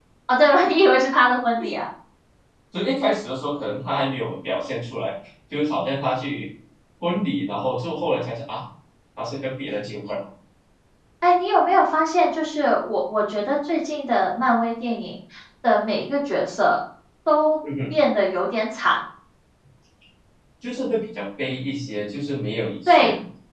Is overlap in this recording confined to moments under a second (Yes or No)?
Yes